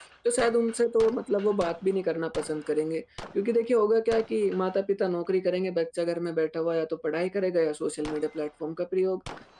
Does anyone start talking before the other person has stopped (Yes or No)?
No